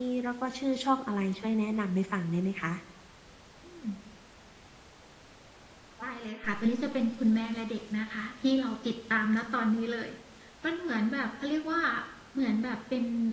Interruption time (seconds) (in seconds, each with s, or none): none